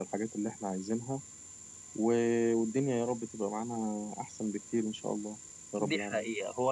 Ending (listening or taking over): taking over